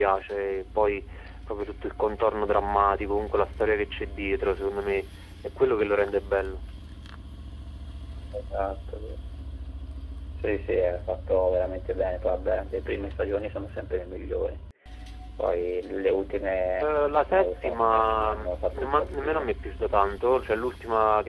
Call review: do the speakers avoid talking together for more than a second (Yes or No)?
No